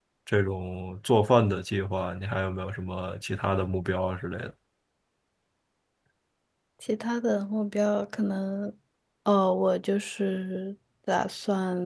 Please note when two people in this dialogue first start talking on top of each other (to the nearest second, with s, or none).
none